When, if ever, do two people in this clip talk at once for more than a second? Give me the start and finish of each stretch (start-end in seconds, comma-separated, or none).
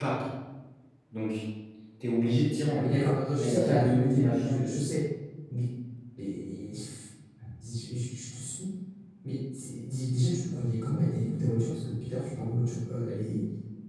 3.4-4.7